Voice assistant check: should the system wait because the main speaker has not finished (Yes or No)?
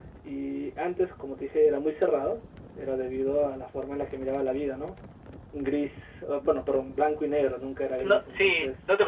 No